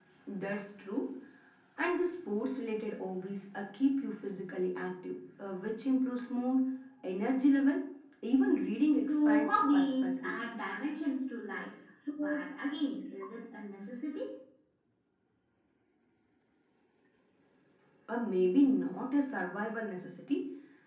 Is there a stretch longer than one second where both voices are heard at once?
Yes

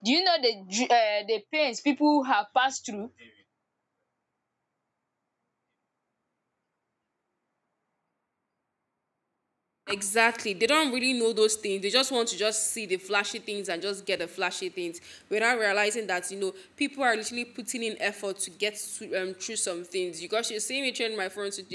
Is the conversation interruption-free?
Yes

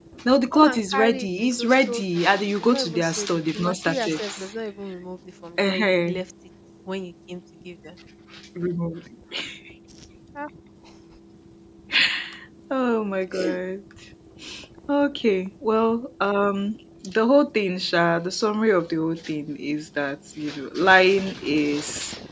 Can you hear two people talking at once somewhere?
Yes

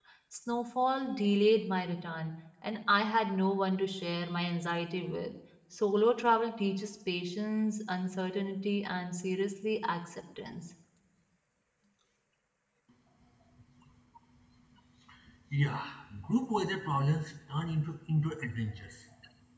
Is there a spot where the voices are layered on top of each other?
No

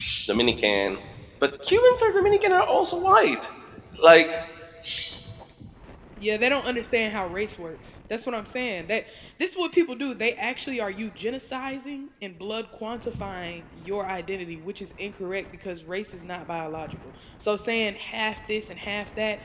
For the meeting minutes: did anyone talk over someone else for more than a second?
No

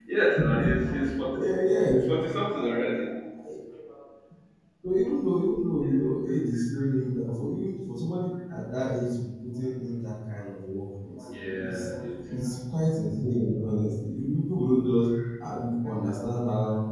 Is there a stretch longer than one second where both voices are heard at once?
No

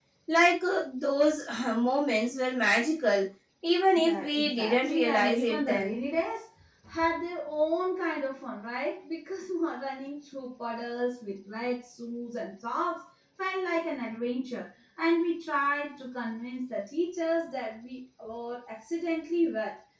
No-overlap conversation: No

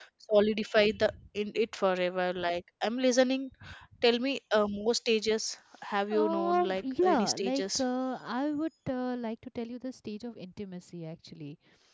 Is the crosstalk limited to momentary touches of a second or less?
No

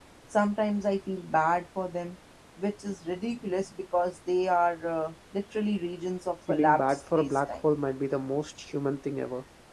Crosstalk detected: Yes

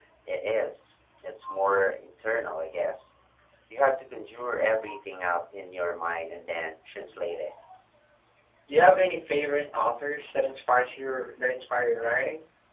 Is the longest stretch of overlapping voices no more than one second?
Yes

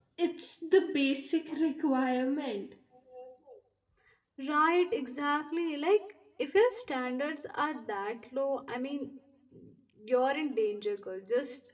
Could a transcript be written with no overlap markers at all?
Yes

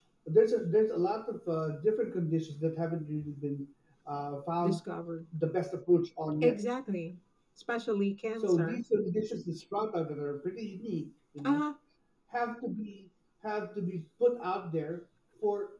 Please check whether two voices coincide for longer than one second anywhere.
No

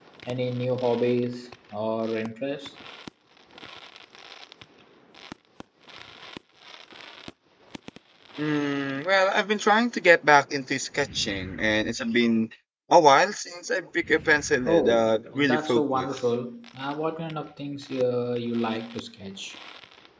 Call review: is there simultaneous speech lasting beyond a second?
Yes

